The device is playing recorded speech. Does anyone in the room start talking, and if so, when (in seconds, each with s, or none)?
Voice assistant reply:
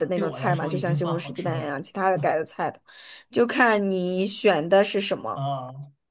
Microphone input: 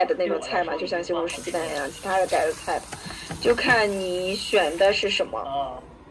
none